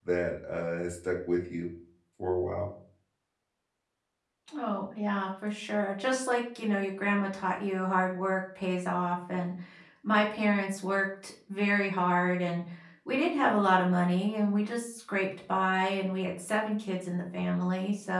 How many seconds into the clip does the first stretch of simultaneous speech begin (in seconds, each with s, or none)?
none